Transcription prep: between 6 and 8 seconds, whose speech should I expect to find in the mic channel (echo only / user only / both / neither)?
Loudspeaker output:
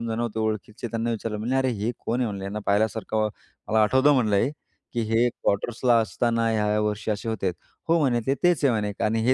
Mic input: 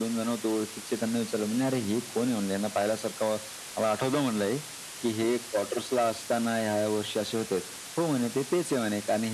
echo only